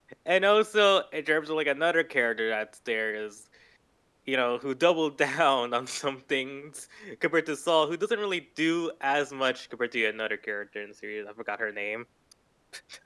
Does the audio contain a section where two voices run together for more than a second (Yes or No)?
No